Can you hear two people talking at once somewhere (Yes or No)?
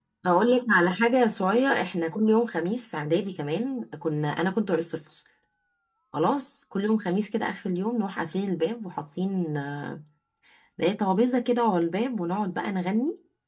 No